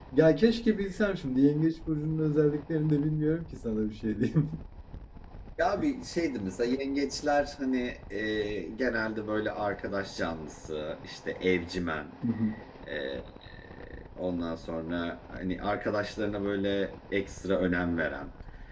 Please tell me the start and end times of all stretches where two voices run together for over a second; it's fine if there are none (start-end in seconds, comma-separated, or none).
none